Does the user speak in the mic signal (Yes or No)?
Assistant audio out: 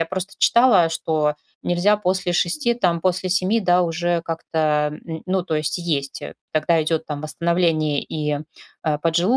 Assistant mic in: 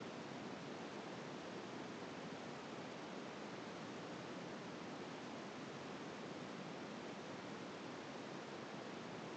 No